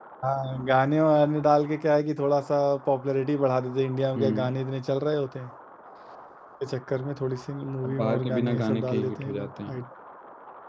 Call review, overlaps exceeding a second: present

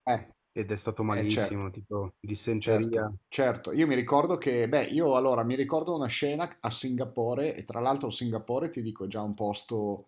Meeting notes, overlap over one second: none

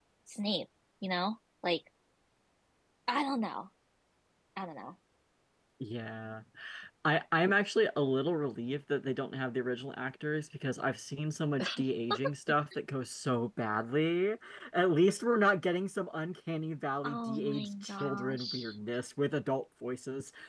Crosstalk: present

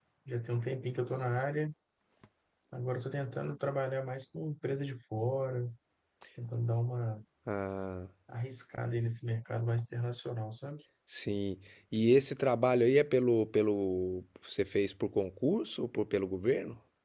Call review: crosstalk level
none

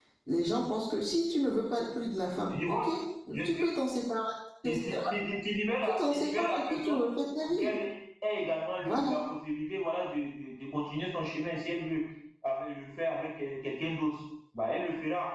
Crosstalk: present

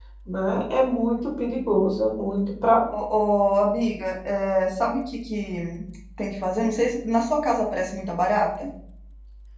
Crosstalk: none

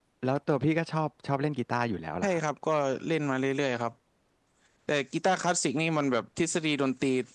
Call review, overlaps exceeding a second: none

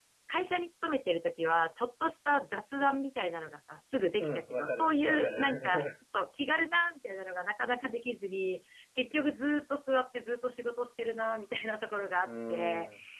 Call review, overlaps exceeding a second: present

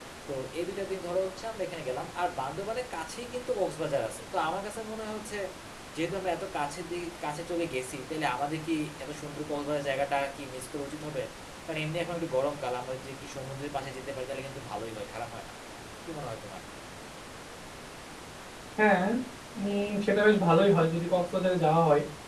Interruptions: none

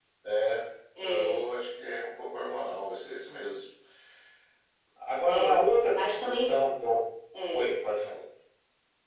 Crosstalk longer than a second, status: present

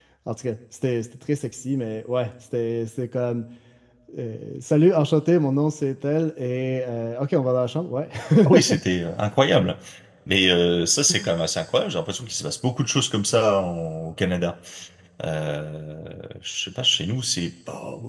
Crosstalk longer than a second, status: none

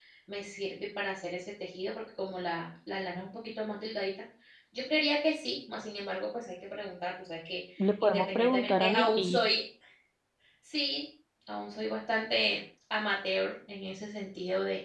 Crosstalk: present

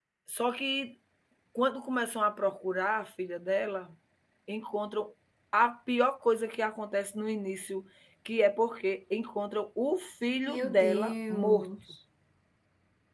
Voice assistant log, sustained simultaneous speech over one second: present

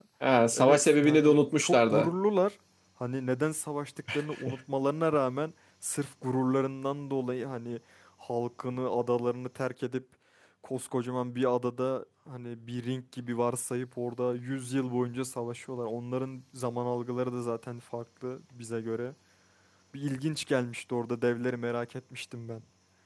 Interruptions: present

